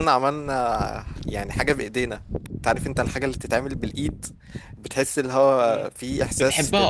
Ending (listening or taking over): taking over